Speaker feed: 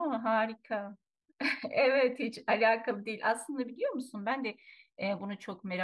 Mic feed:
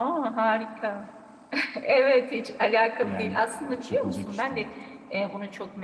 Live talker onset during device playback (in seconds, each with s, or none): 3.0 s